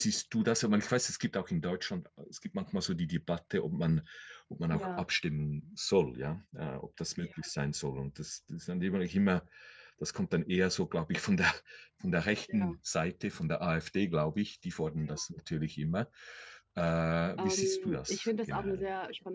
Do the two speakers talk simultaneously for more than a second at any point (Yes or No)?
Yes